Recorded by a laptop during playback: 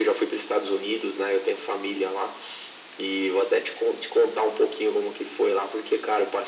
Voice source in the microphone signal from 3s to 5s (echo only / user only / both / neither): echo only